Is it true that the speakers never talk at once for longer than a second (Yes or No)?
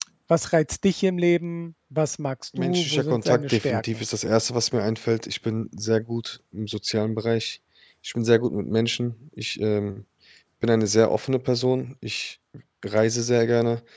No